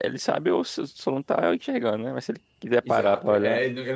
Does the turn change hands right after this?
Yes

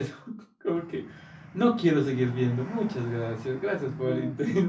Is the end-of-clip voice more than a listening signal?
Yes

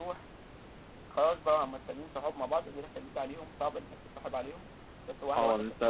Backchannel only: No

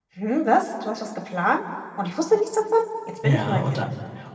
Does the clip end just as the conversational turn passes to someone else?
Yes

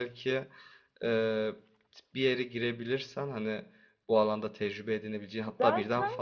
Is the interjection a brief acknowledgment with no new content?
Yes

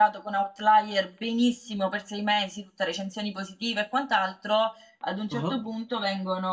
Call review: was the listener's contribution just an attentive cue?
Yes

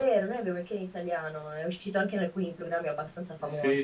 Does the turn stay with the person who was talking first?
No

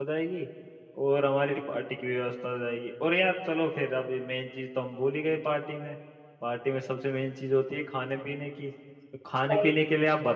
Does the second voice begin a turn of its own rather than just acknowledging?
No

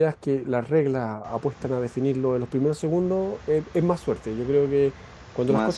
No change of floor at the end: Yes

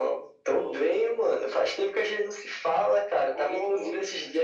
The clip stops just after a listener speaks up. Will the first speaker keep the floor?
Yes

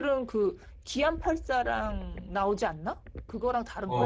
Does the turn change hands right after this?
Yes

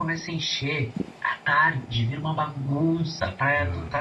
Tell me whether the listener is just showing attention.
Yes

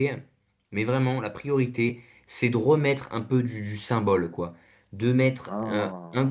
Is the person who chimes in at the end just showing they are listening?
Yes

